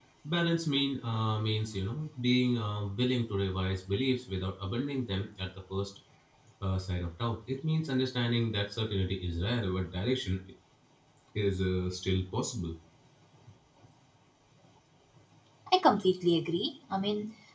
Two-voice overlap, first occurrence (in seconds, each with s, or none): none